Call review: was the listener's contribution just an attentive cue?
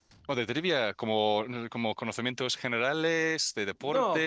No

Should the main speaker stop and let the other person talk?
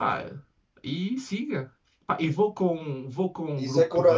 Yes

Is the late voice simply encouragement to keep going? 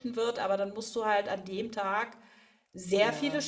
Yes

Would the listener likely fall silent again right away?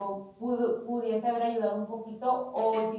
Yes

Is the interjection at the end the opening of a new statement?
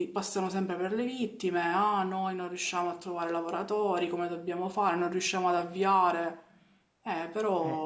Yes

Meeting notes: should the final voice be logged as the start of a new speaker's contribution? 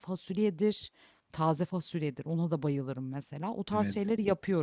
No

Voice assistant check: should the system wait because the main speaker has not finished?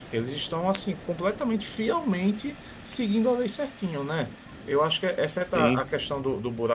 Yes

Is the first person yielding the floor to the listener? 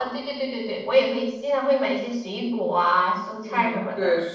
Yes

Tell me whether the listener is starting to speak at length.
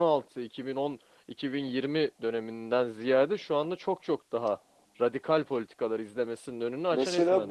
Yes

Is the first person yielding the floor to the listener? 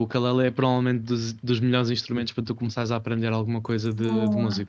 Yes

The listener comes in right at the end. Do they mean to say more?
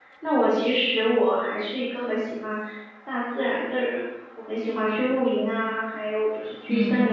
No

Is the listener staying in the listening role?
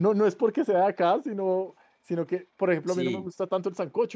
Yes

